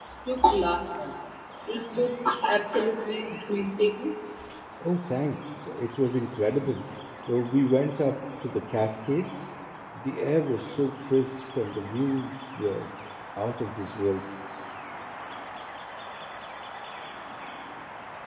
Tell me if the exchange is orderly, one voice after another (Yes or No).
Yes